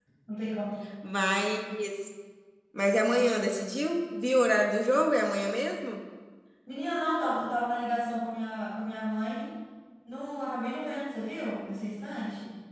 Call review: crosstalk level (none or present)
none